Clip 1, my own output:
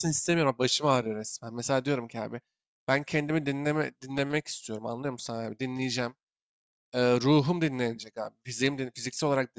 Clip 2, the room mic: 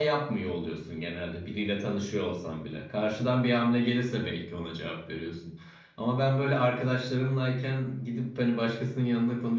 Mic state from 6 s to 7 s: user only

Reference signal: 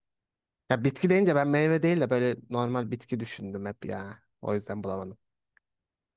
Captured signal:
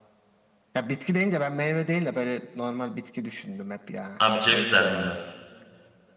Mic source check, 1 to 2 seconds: echo only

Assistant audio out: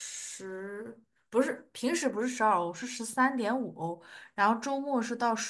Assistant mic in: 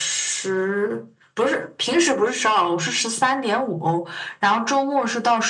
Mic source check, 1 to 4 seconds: echo only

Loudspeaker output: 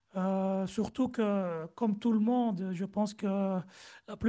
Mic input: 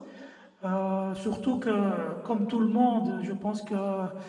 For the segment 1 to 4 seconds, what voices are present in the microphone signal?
echo only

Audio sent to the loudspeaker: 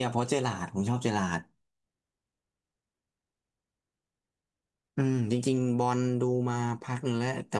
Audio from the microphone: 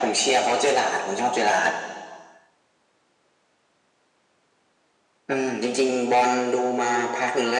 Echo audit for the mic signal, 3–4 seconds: neither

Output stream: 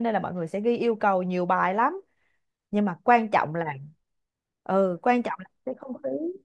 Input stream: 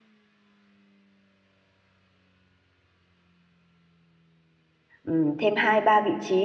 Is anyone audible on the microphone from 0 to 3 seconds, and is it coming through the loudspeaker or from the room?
neither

